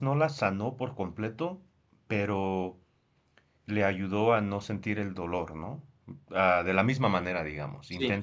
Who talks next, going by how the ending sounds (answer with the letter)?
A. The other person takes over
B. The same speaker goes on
B